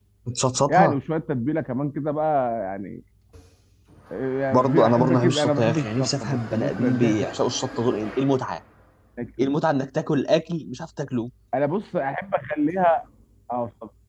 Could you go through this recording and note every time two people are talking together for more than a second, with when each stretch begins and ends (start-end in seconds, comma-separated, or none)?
4.5-7.3